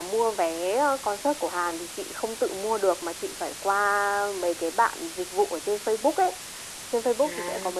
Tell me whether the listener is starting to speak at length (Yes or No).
No